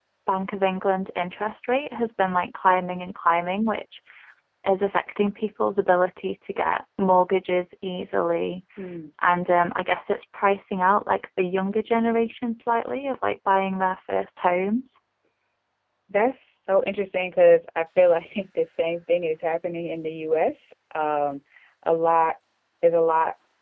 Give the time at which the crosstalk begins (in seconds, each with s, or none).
none